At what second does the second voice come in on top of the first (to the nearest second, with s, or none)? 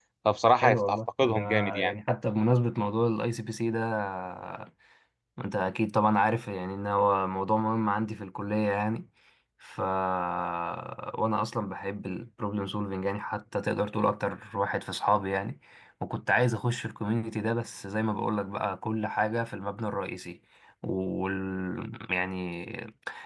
1 s